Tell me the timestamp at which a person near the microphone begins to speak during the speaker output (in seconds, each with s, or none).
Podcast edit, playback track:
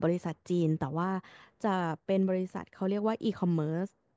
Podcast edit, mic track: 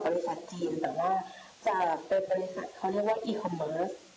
none